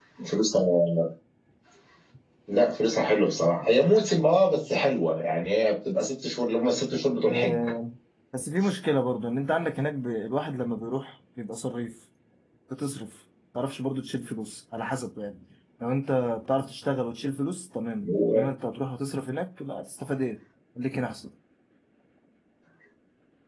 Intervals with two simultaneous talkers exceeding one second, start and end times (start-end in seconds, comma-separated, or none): none